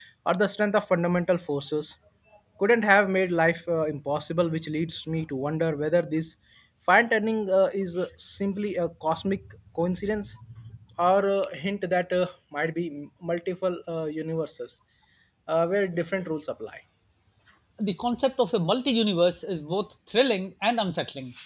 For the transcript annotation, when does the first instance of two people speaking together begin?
none

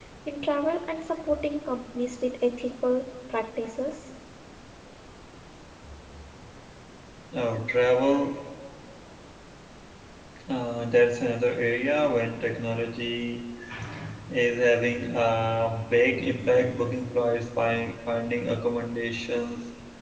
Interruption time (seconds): none

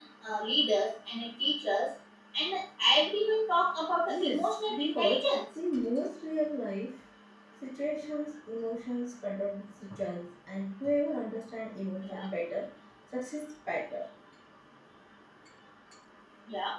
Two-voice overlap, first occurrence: 4.1 s

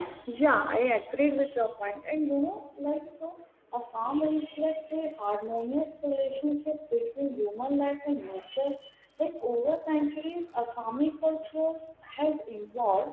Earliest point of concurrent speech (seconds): none

